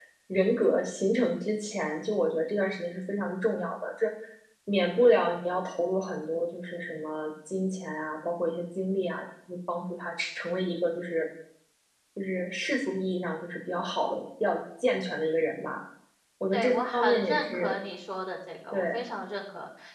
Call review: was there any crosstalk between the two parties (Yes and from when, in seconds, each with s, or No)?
Yes, from 16.5 s